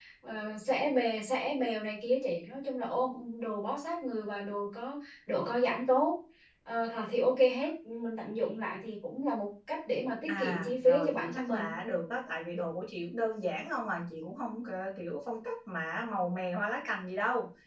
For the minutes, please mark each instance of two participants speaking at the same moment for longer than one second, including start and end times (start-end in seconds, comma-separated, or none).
10.3-11.6